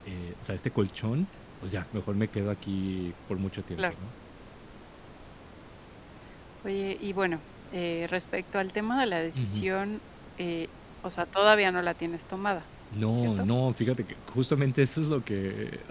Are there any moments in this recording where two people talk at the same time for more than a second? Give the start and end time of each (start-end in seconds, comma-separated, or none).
none